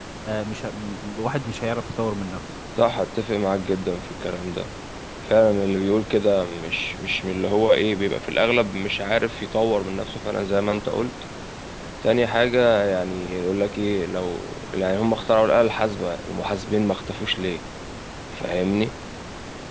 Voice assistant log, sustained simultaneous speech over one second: none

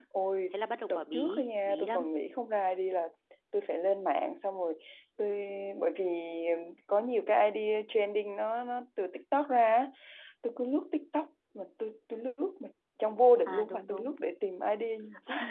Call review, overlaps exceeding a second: present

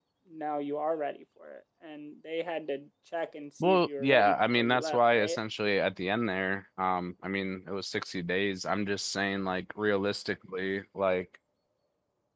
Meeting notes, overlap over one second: present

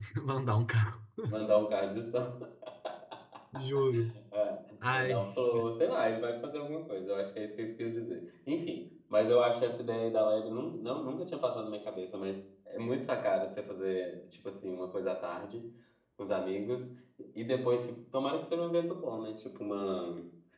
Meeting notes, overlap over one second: none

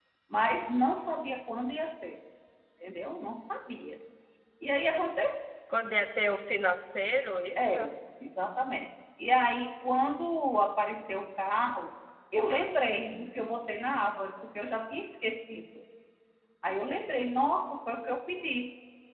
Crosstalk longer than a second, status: none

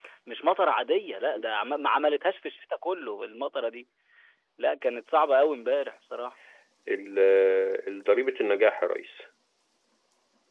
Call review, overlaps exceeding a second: none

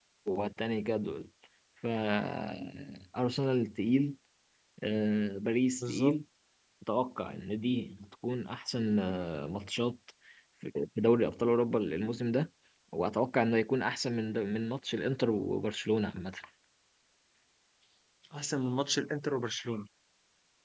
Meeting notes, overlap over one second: none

